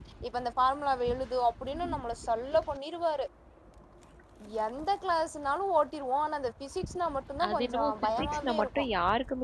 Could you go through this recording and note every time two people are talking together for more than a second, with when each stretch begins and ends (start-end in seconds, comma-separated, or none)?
7.5-8.8